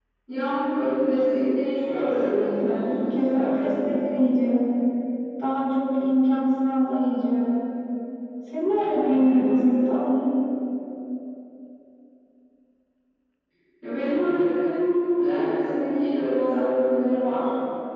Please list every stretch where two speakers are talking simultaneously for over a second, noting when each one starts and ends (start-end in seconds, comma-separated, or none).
2.0-3.8